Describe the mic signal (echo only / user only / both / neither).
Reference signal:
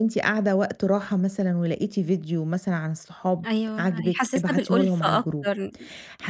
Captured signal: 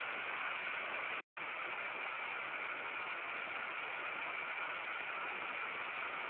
neither